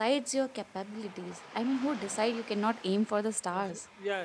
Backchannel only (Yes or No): No